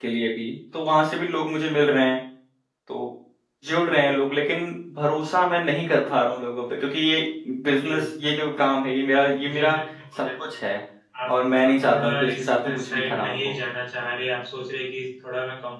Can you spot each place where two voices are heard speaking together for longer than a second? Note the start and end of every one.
11.3-13.6

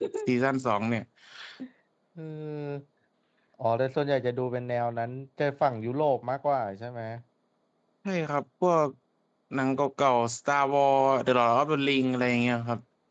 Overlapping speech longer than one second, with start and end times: none

